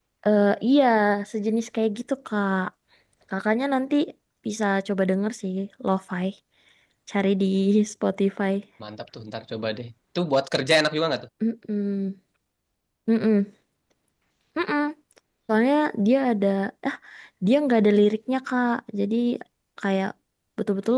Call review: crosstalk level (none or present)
none